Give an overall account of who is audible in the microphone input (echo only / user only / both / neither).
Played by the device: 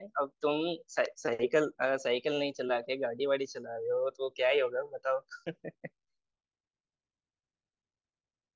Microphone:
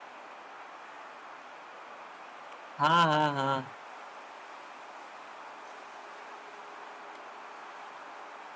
user only